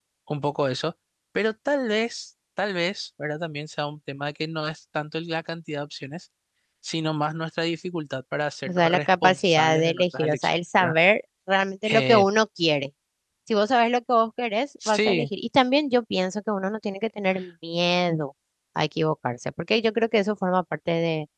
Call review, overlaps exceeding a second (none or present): present